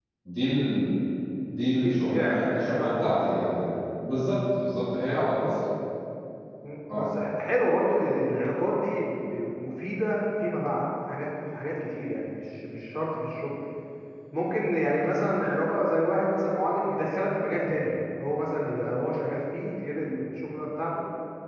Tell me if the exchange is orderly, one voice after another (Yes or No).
No